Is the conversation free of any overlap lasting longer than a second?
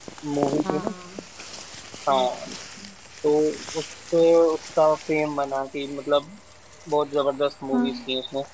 Yes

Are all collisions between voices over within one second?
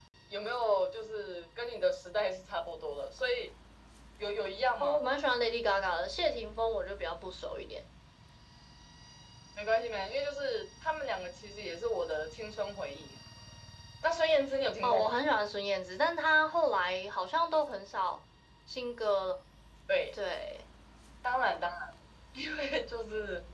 Yes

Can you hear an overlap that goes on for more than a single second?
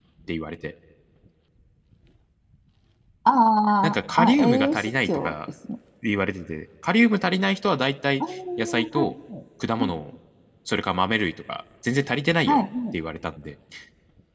Yes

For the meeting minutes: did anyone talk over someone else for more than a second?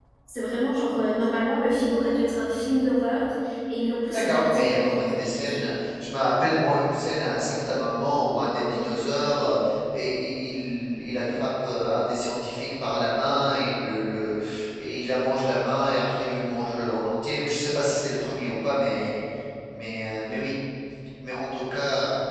Yes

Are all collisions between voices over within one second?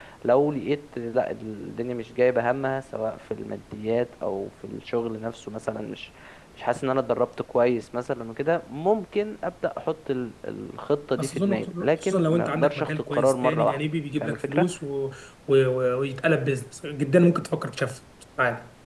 No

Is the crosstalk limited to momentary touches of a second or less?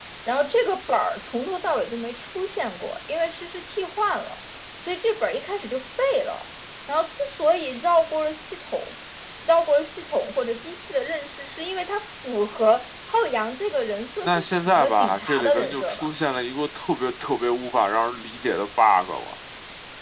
No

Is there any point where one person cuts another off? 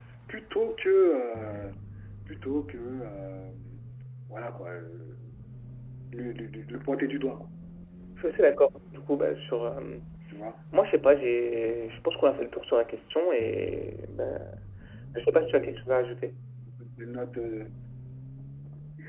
No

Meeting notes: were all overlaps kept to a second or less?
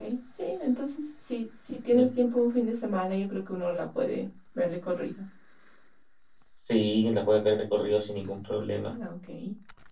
Yes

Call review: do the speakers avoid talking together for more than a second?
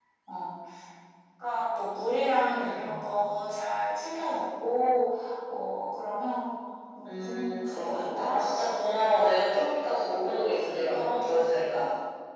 No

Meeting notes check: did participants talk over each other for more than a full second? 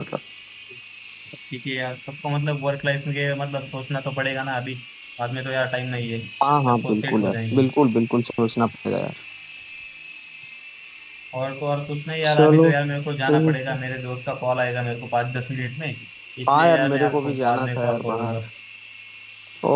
Yes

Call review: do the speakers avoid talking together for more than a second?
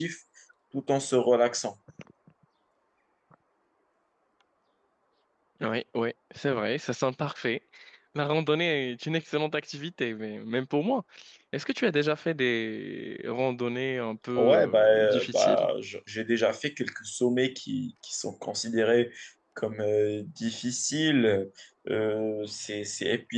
No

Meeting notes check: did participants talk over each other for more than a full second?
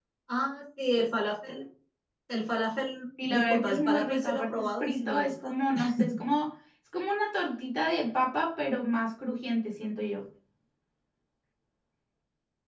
Yes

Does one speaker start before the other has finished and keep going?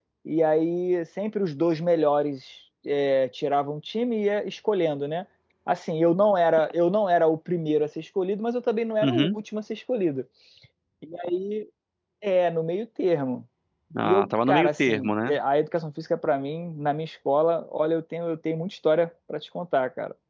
Yes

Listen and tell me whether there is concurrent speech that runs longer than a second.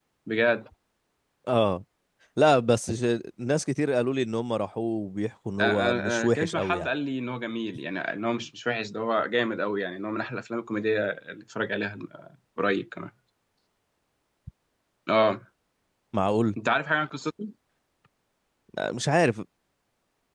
Yes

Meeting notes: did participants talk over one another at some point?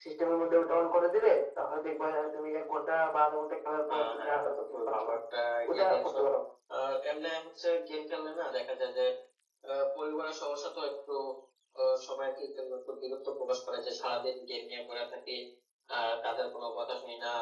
Yes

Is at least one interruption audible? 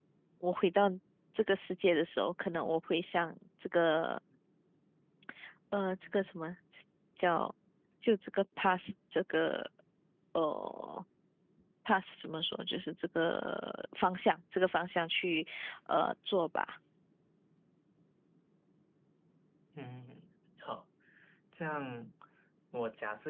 No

